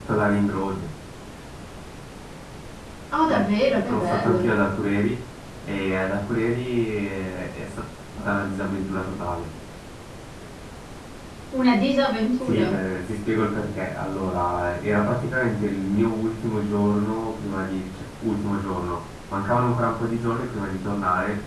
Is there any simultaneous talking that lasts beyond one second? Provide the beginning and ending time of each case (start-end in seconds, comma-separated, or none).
3.3-4.5